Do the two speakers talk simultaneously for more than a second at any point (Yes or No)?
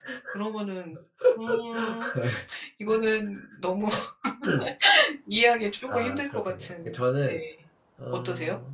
Yes